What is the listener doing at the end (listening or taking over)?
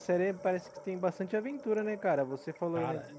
listening